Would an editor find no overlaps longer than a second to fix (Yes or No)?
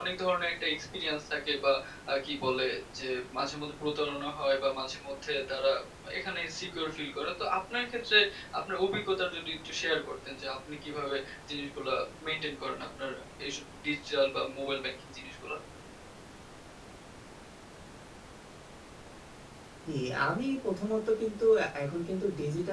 Yes